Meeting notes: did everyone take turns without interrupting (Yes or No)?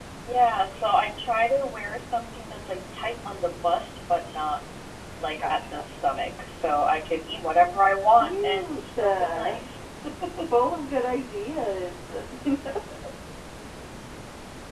No